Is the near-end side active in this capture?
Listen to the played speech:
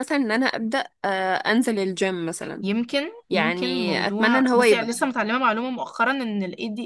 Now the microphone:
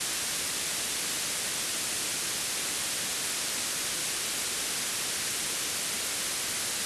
No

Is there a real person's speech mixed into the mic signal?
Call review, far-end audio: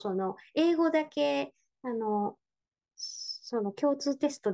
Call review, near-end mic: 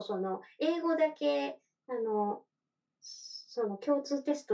No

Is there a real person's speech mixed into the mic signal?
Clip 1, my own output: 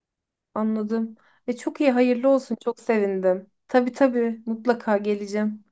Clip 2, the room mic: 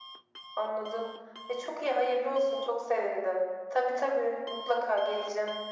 No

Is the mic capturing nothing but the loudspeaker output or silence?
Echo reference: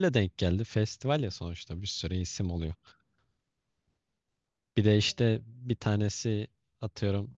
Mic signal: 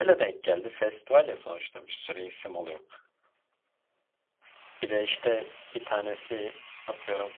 Yes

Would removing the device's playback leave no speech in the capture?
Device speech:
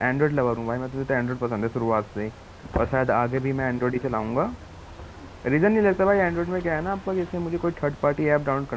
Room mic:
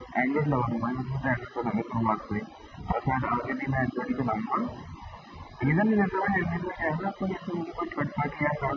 Yes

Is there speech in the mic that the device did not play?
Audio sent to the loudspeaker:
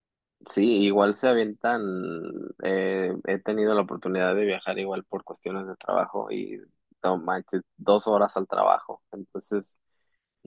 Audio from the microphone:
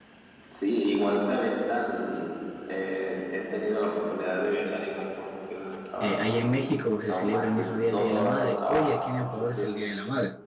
Yes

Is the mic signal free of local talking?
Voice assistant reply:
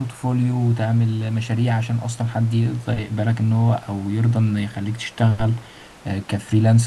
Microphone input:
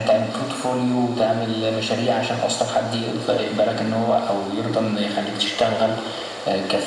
Yes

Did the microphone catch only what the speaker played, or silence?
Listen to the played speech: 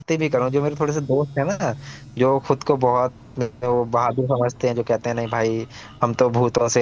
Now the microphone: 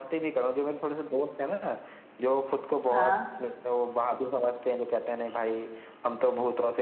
No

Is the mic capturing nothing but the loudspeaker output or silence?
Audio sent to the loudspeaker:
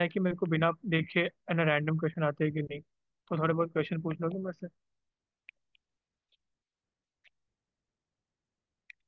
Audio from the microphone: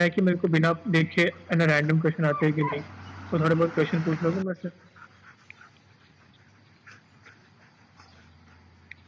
Yes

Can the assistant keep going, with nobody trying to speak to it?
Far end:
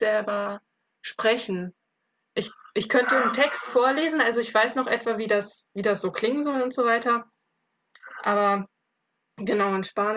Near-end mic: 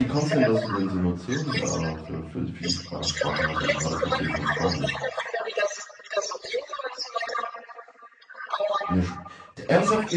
No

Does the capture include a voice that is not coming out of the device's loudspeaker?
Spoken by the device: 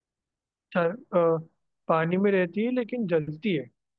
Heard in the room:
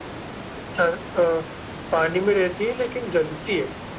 No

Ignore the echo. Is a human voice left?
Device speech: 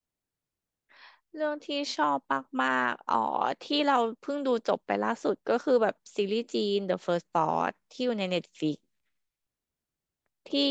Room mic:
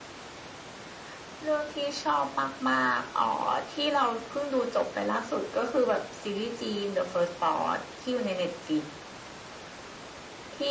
No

